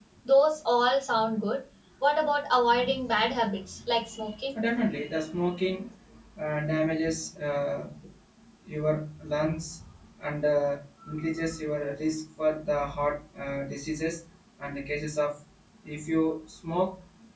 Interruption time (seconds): none

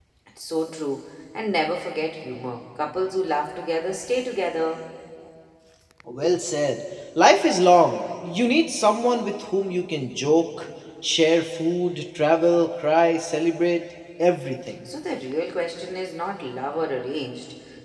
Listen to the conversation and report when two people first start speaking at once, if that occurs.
none

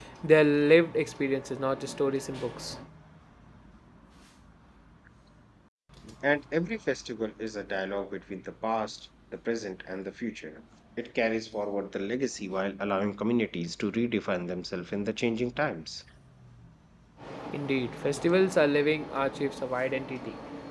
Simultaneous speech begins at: none

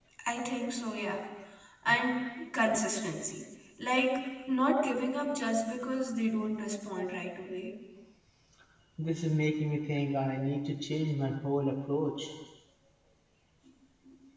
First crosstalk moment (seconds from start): none

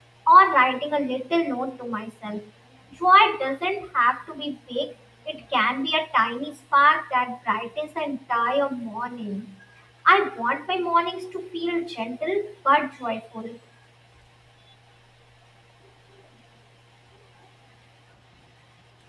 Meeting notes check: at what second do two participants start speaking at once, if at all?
none

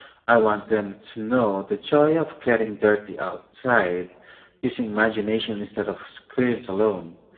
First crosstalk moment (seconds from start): none

